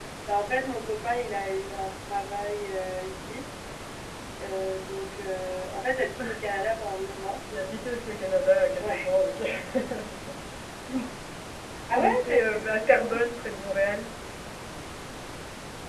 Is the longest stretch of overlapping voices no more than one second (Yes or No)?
No